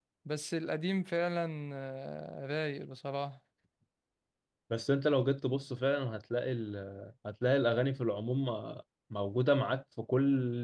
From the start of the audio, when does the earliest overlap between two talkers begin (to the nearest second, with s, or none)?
none